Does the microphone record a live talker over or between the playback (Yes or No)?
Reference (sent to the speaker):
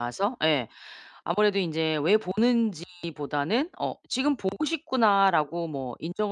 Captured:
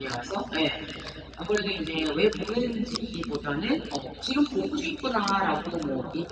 No